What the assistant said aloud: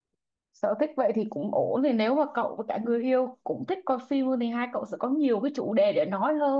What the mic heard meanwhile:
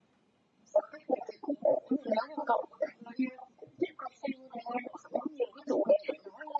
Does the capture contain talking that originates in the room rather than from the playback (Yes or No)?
No